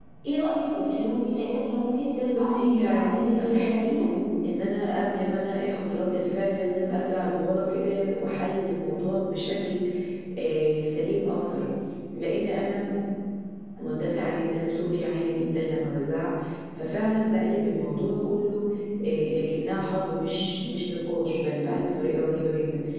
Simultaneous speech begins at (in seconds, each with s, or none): 2.3 s